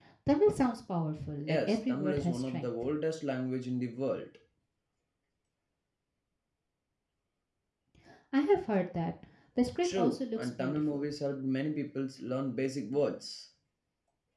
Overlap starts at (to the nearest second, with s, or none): 1 s